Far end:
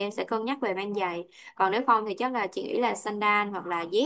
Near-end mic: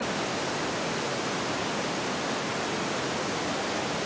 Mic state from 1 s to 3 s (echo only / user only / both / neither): neither